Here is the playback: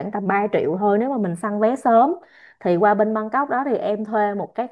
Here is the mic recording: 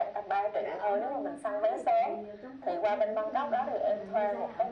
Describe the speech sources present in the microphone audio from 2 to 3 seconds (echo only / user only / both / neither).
both